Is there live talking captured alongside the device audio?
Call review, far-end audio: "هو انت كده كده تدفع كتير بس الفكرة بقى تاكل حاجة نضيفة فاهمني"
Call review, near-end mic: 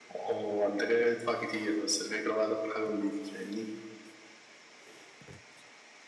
No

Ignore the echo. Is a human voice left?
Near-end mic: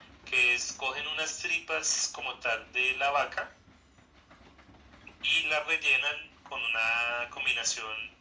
No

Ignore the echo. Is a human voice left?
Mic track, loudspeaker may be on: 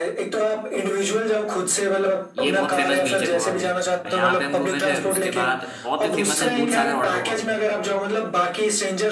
Yes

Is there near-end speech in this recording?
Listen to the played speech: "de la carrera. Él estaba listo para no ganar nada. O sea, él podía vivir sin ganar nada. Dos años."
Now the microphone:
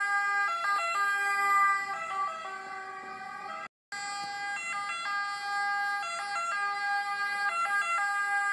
No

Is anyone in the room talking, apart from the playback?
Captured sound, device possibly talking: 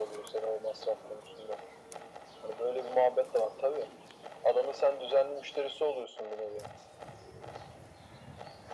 No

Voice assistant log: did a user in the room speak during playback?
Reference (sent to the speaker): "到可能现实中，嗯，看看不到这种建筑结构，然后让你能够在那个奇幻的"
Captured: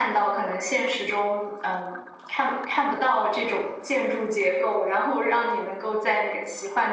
No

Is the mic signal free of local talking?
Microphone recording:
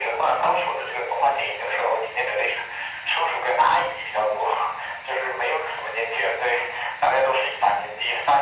Yes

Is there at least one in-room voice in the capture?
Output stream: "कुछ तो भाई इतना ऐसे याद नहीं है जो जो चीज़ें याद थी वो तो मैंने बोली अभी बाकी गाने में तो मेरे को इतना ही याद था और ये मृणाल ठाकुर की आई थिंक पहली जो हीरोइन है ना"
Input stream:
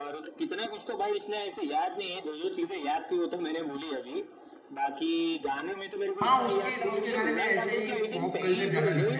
Yes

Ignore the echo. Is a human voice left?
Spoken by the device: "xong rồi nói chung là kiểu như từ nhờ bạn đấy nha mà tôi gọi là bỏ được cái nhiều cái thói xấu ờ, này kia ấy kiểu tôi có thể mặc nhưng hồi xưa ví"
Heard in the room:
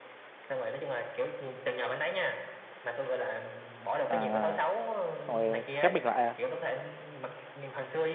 Yes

